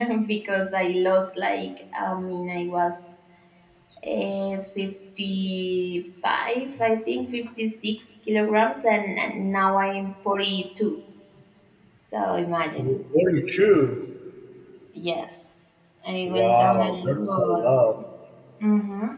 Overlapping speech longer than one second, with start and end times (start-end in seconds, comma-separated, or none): 16.2-17.7